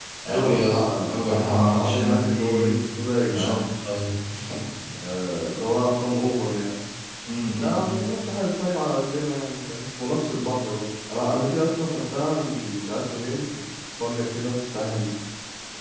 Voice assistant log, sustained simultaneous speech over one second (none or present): present